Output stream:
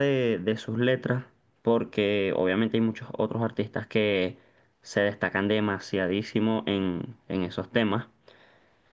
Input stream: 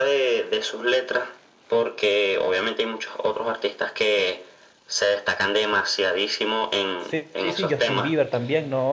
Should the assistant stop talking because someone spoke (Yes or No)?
Yes